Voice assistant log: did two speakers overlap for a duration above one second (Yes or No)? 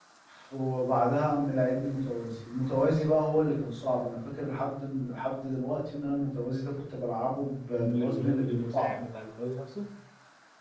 Yes